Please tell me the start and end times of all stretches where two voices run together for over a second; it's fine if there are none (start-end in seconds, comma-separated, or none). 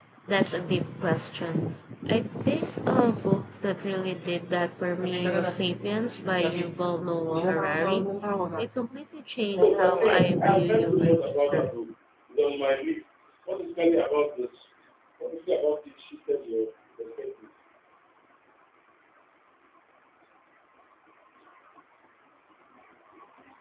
9.6-11.7